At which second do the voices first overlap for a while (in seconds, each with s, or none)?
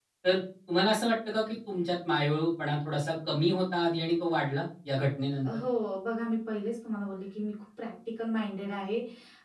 none